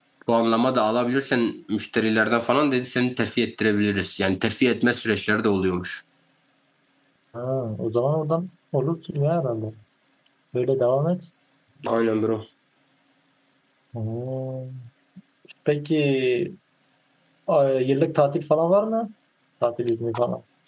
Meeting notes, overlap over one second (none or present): none